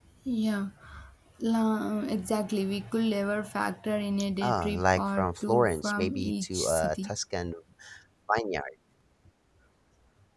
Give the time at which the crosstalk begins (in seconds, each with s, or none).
4.4 s